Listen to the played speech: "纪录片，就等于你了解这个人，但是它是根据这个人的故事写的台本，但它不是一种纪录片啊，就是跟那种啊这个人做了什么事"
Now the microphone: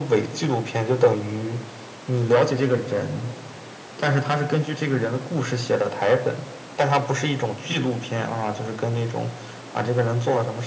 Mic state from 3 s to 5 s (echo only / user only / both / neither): echo only